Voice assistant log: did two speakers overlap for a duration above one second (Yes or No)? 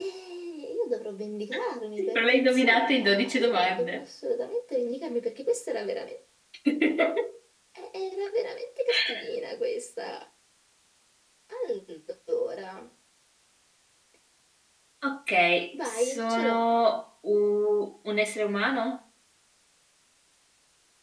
Yes